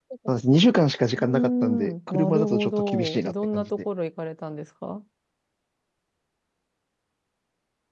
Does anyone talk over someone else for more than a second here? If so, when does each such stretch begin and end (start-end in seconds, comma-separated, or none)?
1.3-3.7